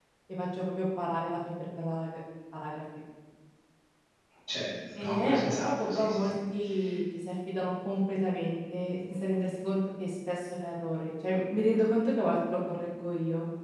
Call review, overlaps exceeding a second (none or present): present